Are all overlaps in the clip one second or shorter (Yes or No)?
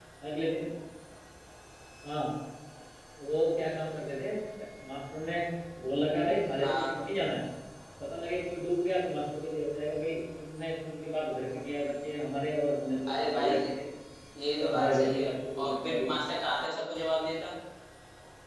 No